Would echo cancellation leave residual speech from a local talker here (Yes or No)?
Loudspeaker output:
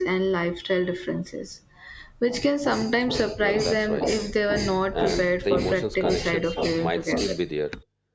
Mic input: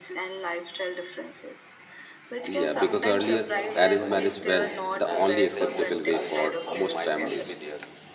Yes